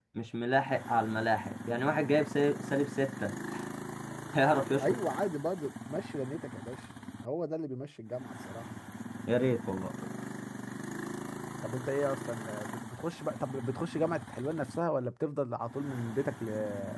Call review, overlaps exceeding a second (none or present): none